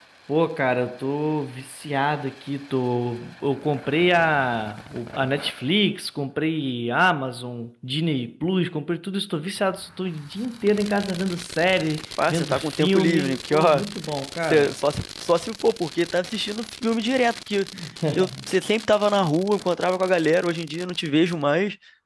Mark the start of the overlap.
12 s

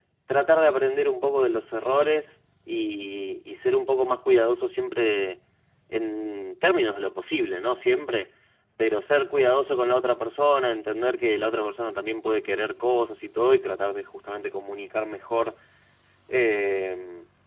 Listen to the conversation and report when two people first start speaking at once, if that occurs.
none

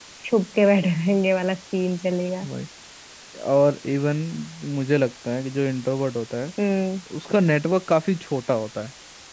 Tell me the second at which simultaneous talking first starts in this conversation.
none

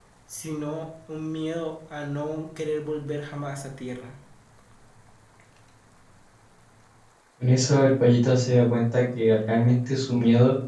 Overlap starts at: none

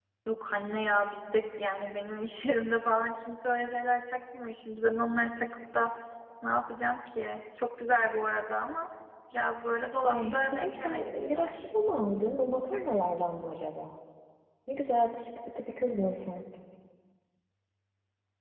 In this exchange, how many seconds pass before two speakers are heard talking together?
10 s

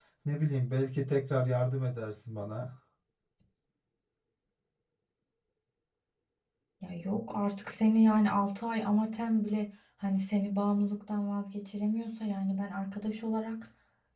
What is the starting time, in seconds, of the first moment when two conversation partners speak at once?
none

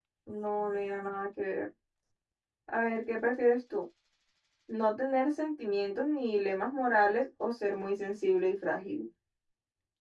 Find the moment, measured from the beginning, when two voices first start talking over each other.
none

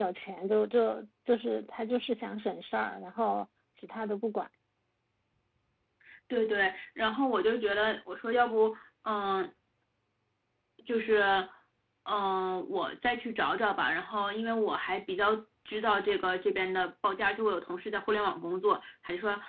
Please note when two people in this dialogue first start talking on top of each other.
none

